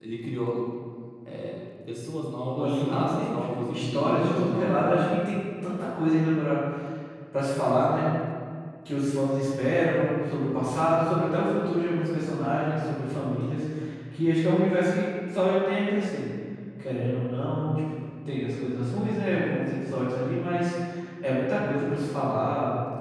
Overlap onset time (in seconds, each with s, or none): 2.5 s